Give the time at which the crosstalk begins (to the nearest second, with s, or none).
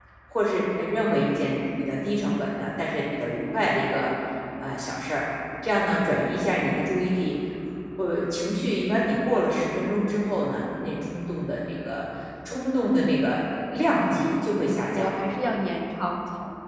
14 s